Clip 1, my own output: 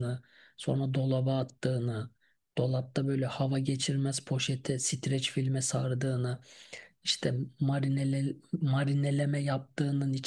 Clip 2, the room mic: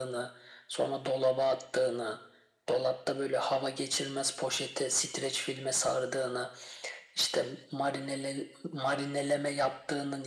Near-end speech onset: none

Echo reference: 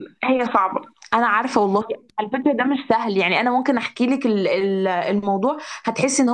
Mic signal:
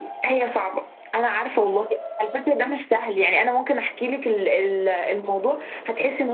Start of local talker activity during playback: none

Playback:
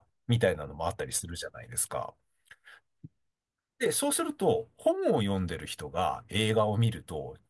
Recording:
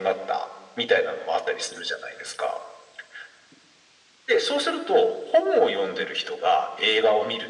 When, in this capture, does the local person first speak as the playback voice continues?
none

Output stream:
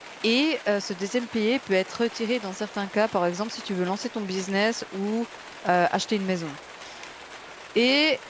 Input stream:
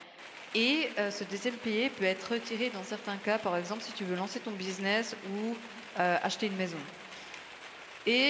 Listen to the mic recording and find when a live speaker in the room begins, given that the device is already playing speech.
none

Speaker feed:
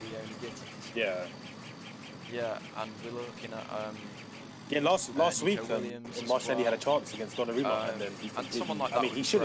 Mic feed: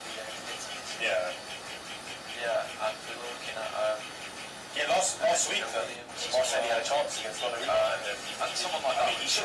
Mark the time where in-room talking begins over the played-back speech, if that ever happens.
none

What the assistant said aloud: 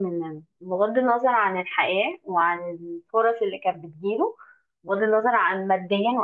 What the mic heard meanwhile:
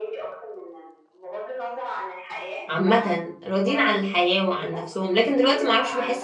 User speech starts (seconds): 3 s

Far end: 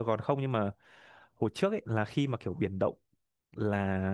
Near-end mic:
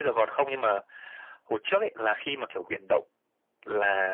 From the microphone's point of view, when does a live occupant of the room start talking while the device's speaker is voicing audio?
none

